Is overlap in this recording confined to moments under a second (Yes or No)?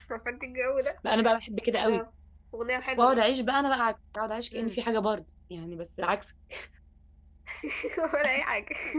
Yes